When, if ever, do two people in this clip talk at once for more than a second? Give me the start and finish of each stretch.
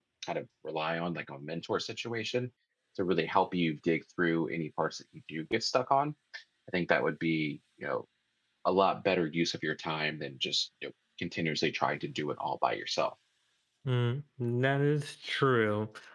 none

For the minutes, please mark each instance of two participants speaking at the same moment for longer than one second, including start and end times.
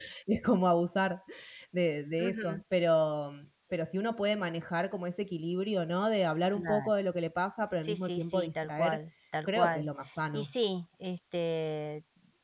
7.8-9.0

